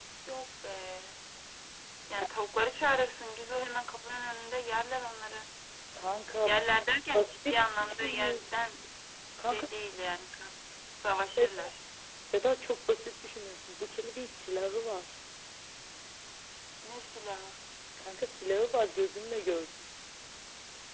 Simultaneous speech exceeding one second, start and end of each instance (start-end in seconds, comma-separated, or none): 7.1-8.4